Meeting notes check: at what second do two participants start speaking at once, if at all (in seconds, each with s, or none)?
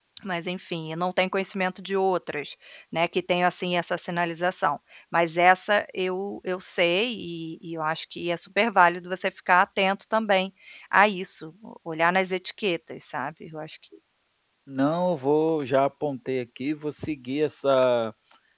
none